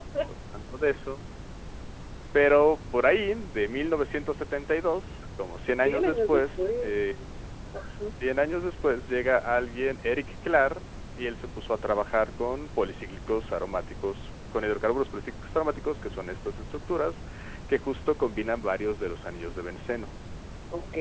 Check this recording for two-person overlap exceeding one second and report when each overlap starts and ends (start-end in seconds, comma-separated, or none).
5.8-7.1